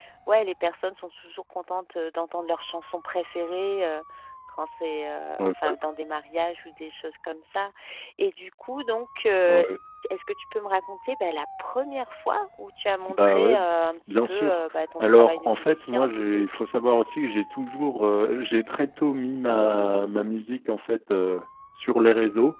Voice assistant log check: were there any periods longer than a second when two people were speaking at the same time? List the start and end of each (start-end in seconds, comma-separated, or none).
15.0-16.4